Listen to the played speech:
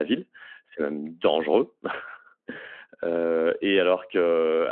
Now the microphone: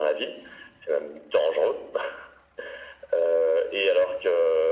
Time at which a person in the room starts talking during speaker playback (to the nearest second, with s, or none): none